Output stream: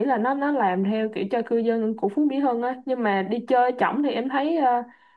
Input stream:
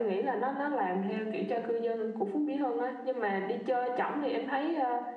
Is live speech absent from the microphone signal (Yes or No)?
Yes